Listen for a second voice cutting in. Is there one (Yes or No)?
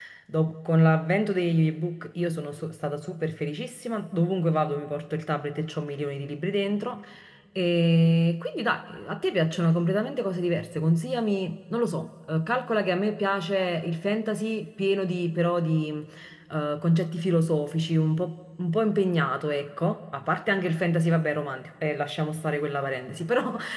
No